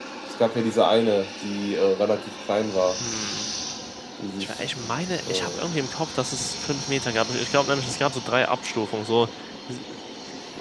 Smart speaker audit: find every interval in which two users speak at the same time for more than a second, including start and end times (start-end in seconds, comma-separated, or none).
none